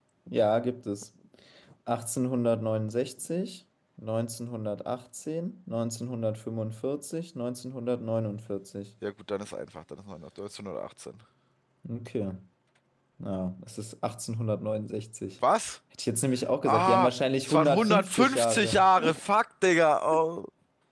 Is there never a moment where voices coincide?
No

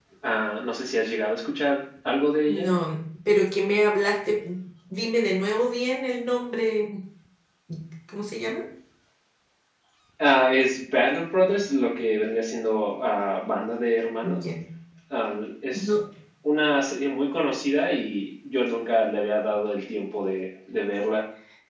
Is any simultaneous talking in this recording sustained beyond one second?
No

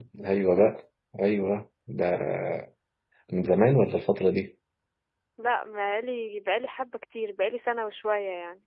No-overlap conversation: Yes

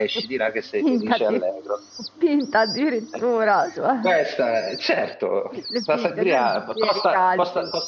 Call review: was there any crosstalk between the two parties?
Yes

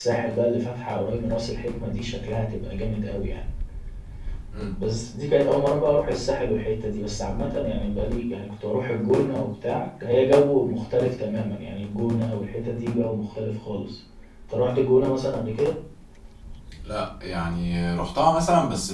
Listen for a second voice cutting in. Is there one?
No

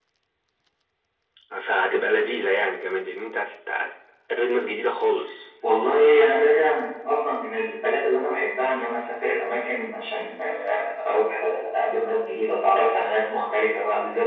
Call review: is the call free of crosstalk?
Yes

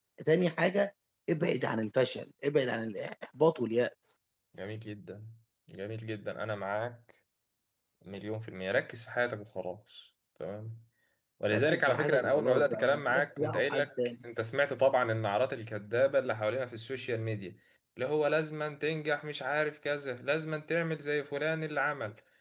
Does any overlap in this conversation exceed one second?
Yes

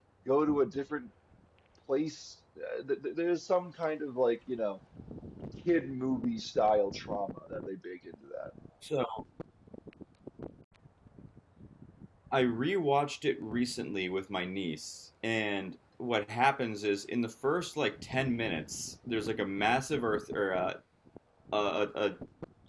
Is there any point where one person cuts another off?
No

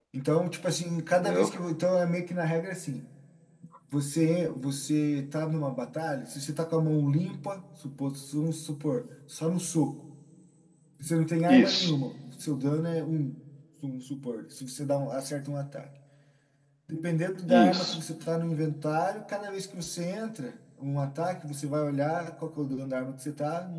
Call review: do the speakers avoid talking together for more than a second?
Yes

